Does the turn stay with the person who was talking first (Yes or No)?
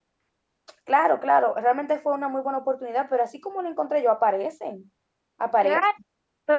No